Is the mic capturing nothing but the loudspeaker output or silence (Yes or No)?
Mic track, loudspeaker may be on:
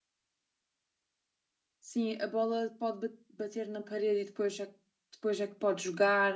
No